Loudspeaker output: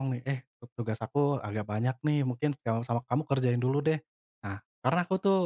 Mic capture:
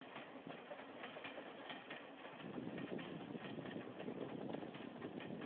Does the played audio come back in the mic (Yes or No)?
No